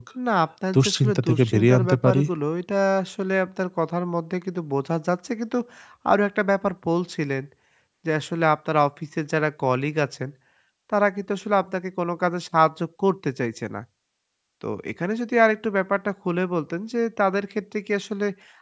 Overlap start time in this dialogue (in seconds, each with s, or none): 0.7 s